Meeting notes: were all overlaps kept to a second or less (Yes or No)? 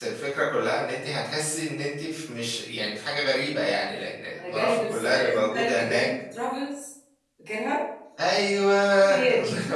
No